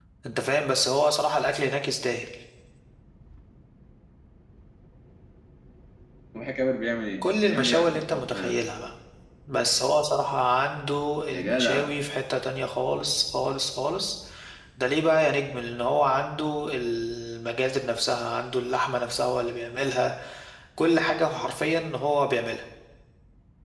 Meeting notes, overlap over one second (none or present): present